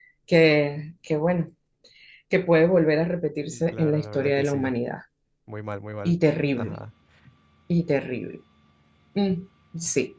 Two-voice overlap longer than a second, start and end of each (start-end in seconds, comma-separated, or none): 3.5-4.7